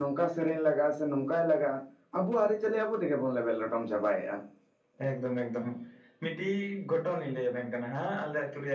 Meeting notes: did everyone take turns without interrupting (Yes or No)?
Yes